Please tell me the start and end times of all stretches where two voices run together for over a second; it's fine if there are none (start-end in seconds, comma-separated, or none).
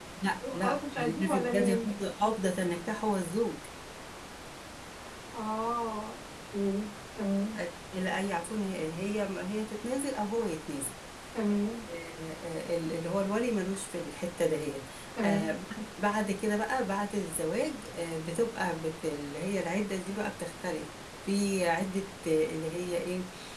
0.5-1.9